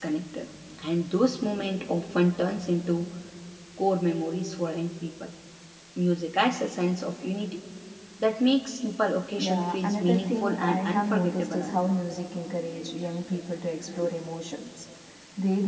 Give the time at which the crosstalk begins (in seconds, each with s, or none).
9.4 s